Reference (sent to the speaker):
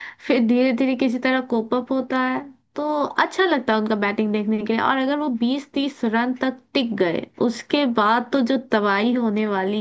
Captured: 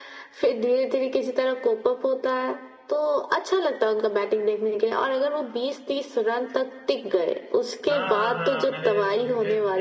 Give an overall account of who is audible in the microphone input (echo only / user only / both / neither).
both